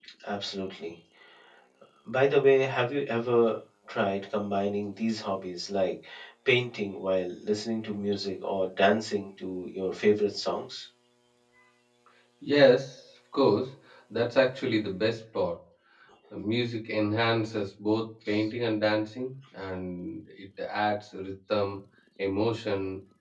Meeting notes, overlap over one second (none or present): none